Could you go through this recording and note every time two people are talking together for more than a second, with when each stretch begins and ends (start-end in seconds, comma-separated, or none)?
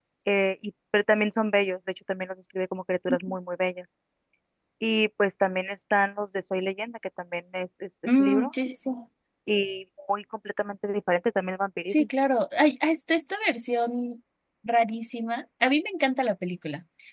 none